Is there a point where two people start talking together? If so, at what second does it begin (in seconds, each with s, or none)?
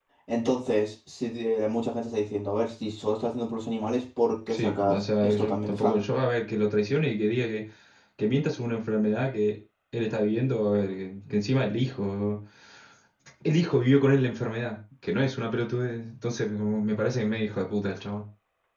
4.5 s